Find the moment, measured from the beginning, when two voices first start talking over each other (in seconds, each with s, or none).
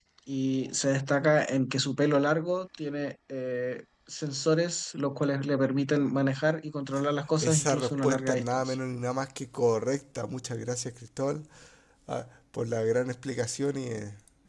7.4 s